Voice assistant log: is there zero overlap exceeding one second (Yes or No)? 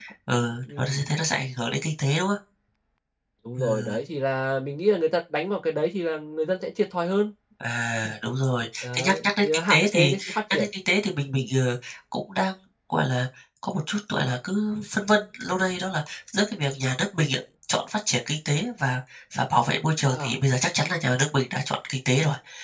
No